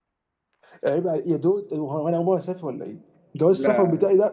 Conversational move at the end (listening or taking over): listening